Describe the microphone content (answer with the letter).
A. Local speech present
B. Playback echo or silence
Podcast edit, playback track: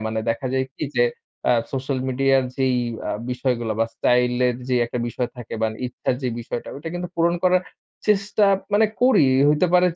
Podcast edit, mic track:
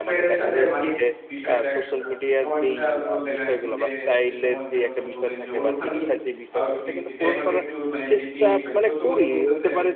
A